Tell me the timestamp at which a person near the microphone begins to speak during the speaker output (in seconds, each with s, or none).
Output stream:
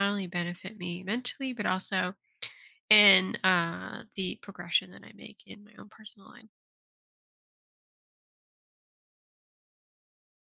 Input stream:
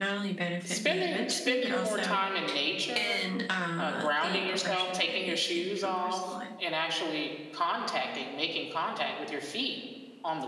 0.6 s